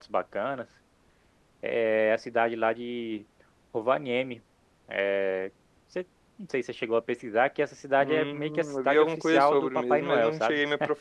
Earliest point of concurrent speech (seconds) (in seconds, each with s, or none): 8.0 s